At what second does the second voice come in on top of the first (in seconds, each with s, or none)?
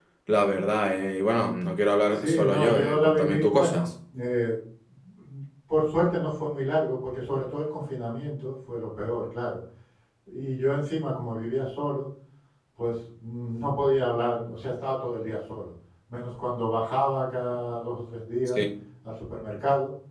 2.1 s